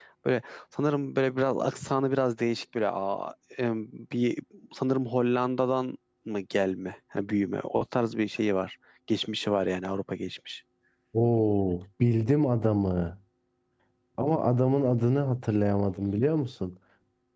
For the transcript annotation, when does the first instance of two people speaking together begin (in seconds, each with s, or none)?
none